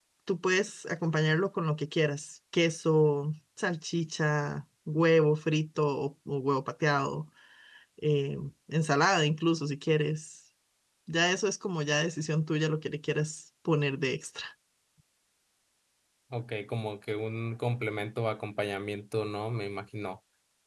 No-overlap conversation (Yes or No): Yes